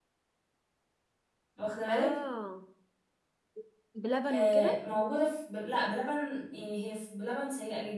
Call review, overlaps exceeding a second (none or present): none